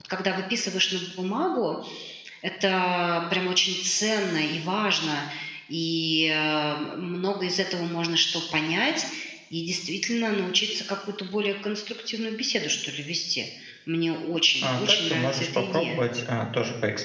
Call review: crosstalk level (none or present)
present